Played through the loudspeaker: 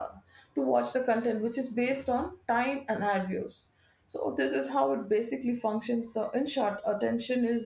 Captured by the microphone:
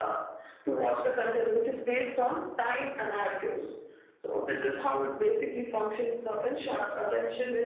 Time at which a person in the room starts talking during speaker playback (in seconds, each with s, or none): none